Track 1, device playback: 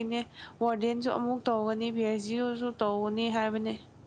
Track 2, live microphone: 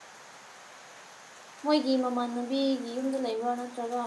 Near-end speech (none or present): present